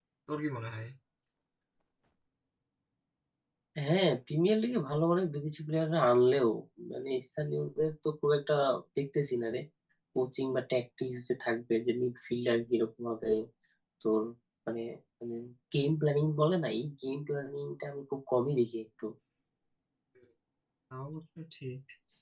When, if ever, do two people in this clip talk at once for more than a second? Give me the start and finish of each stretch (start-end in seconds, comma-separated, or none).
none